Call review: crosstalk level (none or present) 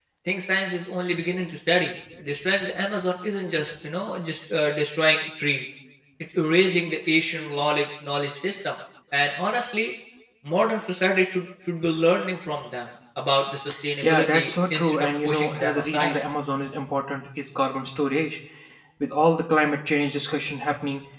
present